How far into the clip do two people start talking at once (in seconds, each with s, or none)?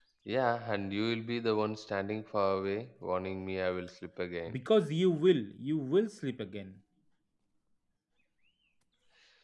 none